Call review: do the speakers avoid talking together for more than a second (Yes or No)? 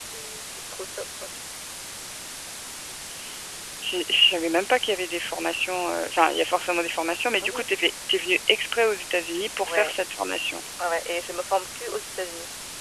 Yes